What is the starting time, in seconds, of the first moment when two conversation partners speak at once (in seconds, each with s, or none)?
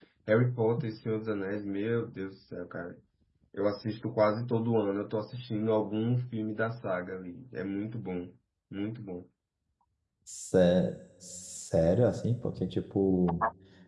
none